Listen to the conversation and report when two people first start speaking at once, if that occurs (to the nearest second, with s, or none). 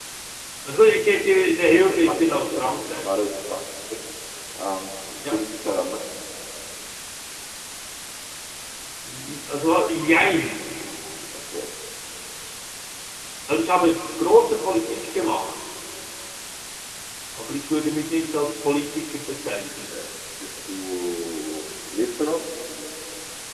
2 s